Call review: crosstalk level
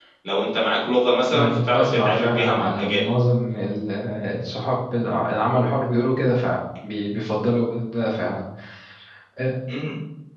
present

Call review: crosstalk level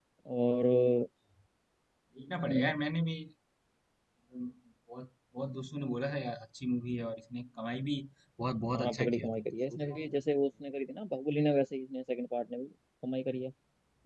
present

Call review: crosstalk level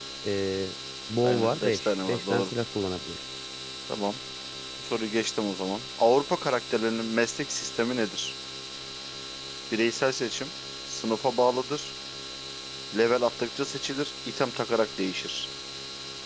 present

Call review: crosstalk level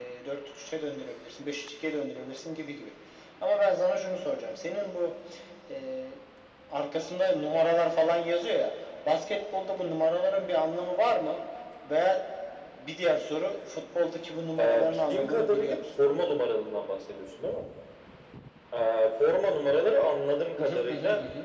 present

